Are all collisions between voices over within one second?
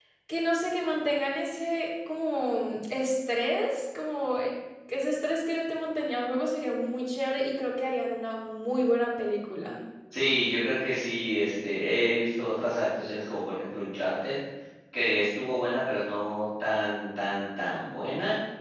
Yes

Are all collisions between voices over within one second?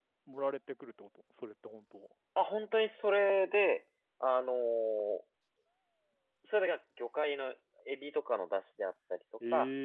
Yes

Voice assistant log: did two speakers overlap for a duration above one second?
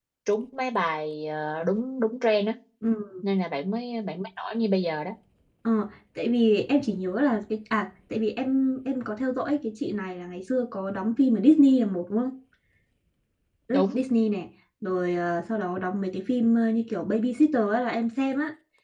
No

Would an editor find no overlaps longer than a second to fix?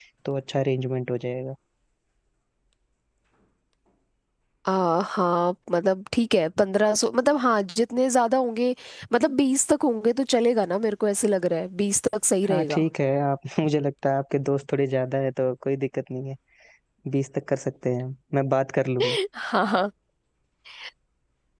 Yes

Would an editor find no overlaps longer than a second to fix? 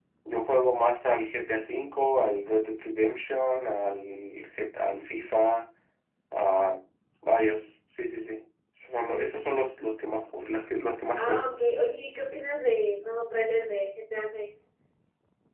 Yes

